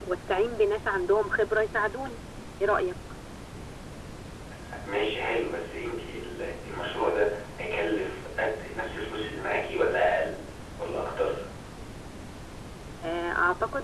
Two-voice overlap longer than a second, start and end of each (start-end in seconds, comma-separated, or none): none